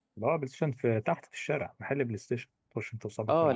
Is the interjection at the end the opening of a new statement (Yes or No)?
Yes